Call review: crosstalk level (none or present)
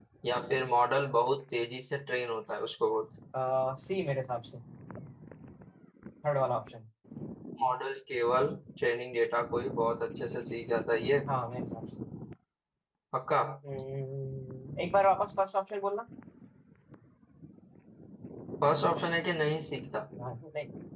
none